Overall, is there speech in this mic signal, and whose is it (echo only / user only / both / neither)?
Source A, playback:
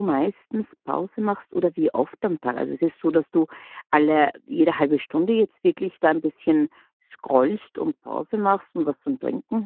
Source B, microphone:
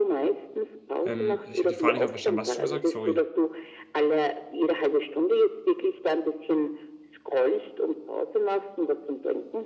both